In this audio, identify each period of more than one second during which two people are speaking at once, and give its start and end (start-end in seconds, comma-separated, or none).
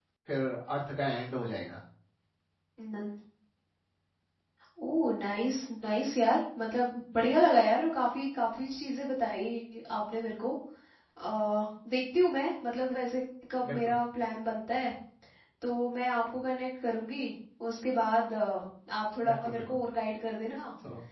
none